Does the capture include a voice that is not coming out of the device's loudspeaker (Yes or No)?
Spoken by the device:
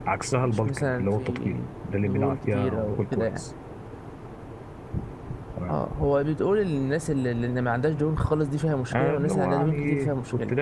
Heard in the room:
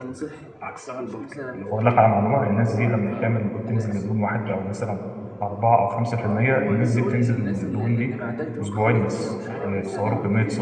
Yes